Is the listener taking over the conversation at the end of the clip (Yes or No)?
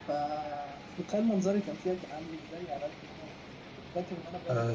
Yes